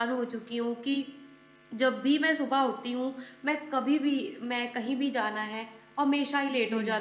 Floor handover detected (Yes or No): No